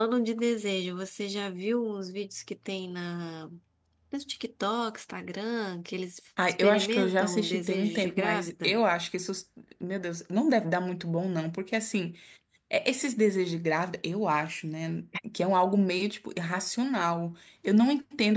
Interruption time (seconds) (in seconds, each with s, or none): 6.6 s